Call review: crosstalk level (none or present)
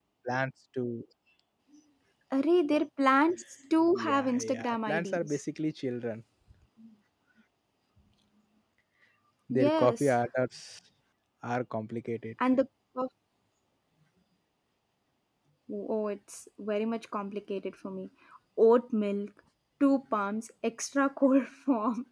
present